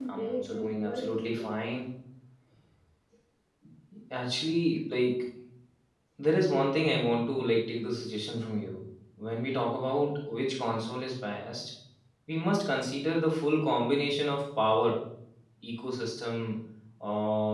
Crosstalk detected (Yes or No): Yes